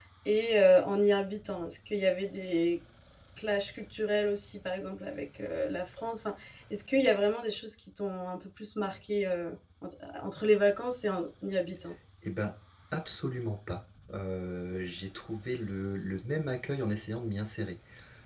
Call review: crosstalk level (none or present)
none